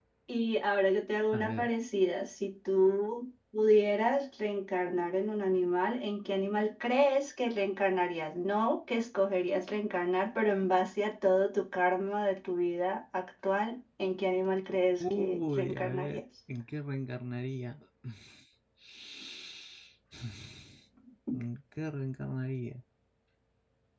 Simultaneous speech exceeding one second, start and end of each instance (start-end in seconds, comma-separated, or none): 15.0-16.2